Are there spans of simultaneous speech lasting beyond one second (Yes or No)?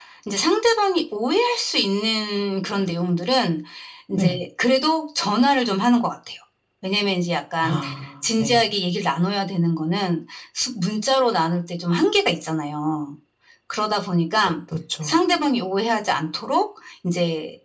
No